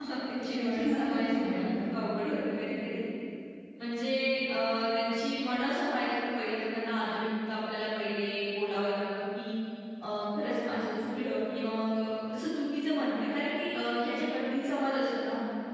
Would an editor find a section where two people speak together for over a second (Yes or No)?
Yes